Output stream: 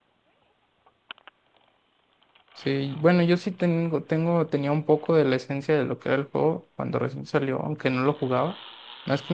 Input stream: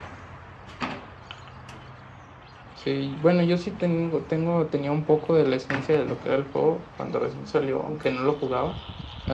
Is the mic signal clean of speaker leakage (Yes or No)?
No